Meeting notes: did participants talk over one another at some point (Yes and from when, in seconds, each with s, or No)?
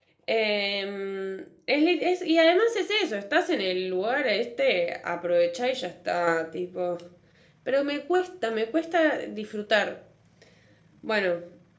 No